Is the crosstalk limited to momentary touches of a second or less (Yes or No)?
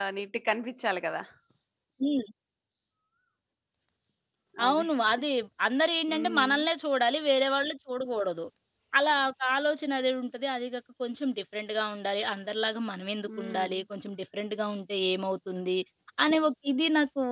Yes